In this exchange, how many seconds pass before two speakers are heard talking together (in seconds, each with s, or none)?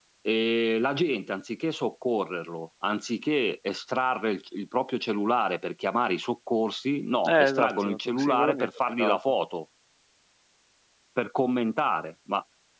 7.2 s